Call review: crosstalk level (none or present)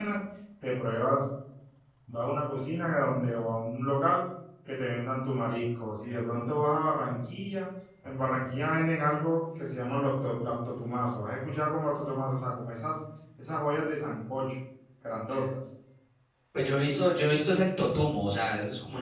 none